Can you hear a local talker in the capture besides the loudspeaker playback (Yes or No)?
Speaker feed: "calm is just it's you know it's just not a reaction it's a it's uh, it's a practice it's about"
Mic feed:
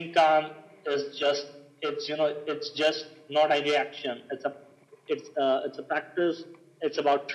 No